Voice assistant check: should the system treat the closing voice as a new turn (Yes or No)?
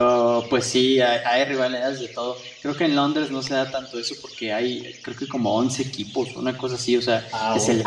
No